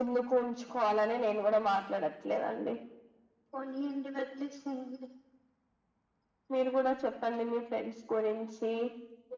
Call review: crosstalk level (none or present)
none